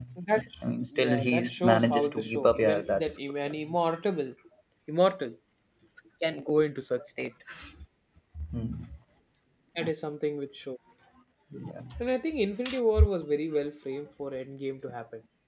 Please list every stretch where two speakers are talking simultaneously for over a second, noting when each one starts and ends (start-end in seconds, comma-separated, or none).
1.0-3.1